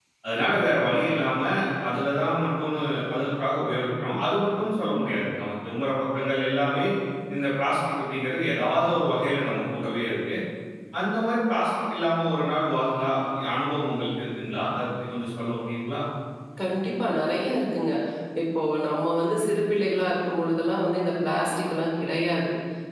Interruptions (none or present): none